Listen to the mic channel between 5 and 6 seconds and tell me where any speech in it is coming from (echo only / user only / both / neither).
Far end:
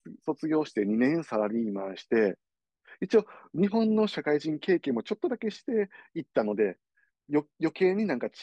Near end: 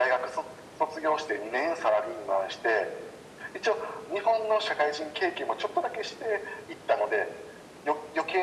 echo only